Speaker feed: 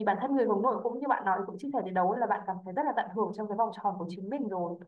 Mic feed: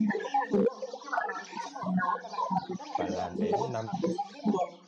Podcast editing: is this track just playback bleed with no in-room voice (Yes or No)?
No